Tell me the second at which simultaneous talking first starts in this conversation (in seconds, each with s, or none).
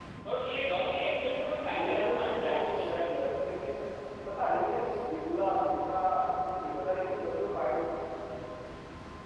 1.7 s